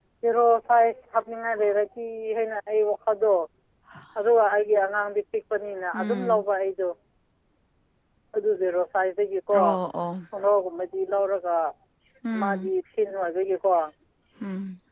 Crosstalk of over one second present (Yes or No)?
No